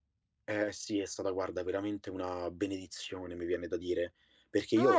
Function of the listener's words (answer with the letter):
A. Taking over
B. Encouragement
A